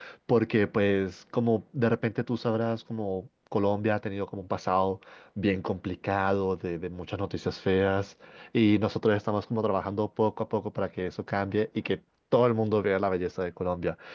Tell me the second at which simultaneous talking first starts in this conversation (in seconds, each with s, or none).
none